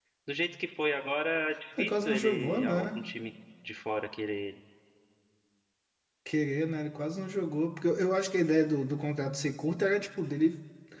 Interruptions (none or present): present